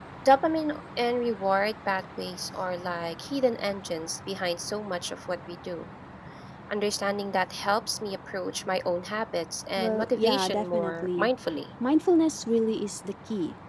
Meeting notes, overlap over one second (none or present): present